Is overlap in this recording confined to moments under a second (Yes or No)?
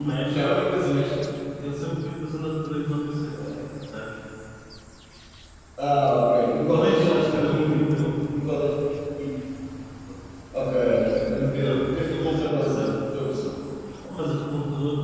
No